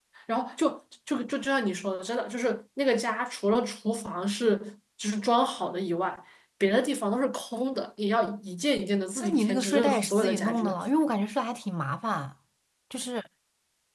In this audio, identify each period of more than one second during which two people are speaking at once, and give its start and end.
9.2-10.7

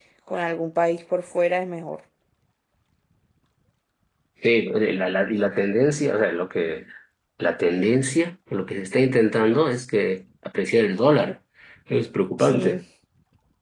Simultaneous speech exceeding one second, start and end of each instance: none

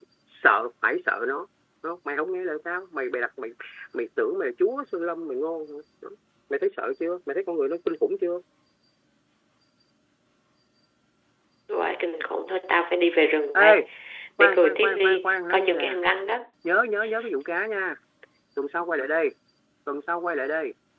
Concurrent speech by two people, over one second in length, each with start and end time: 14.4-16.0

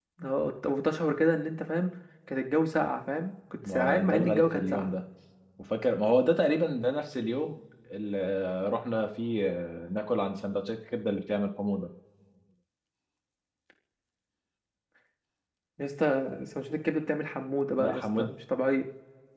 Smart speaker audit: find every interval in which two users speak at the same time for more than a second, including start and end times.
3.6-4.9

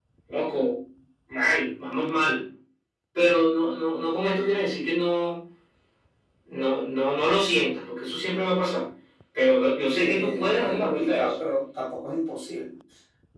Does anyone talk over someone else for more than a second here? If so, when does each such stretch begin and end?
9.9-11.3

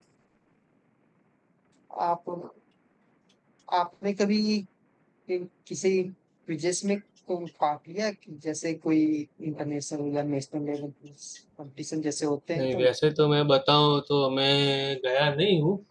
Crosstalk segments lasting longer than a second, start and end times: none

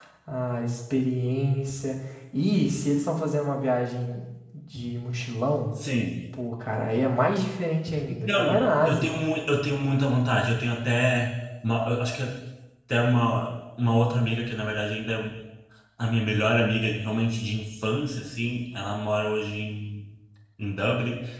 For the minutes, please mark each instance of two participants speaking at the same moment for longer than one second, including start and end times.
none

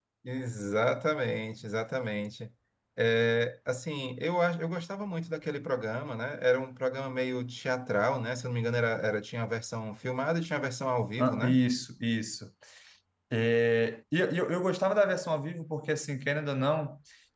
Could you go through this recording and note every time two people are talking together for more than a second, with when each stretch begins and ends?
none

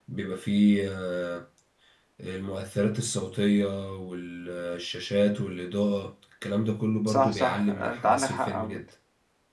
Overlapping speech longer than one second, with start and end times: 7.1-8.8

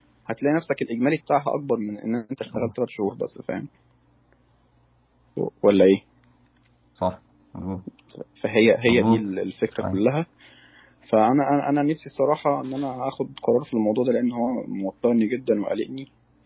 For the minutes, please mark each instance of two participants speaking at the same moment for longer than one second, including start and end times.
none

